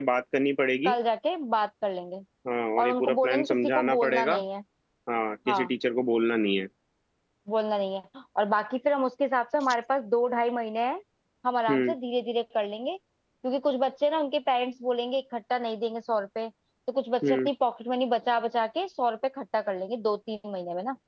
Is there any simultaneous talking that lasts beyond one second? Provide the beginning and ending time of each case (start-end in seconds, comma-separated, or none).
2.8-4.3